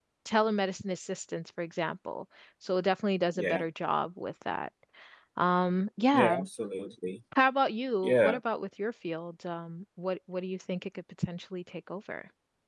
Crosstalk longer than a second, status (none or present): none